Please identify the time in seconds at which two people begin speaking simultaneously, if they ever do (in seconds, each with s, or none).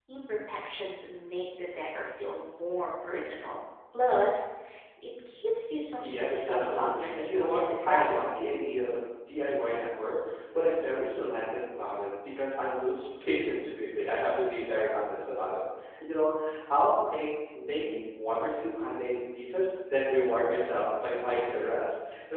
6.0 s